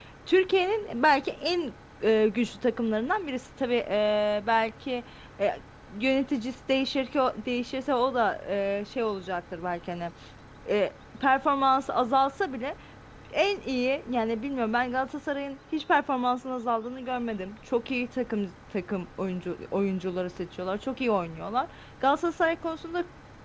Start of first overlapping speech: none

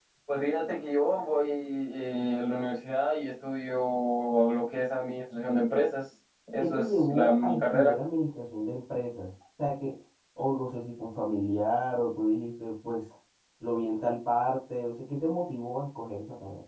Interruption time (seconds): 6.6 s

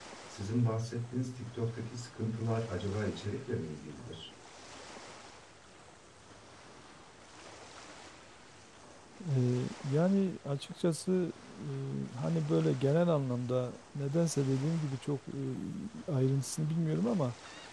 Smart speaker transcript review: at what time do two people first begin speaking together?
none

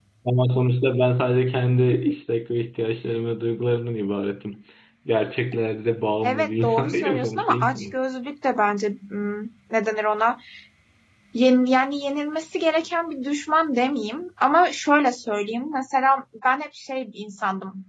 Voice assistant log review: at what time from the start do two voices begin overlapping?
6.2 s

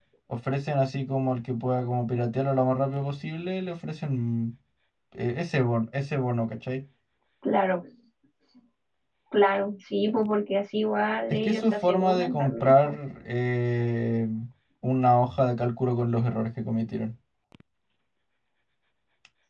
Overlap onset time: 11.3 s

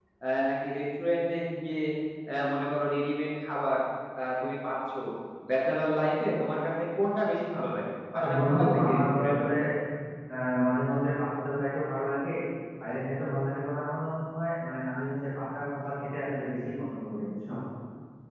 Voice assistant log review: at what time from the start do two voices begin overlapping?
8.1 s

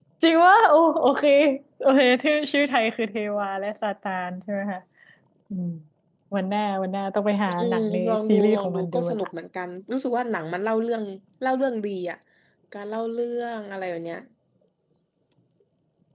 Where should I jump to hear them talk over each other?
7.5 s

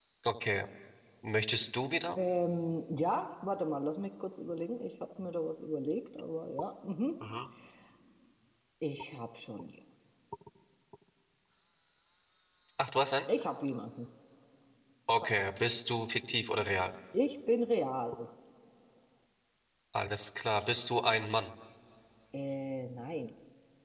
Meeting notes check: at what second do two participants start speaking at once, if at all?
none

